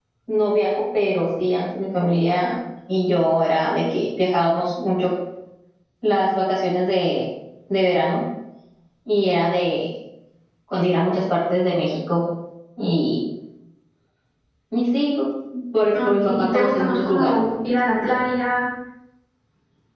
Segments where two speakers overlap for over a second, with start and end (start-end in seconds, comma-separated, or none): 15.9-17.4